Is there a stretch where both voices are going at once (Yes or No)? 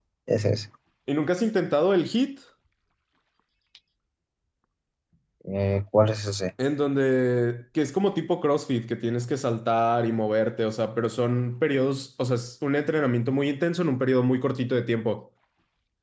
No